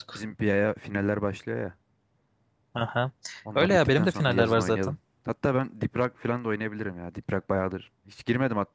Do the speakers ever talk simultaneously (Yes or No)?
Yes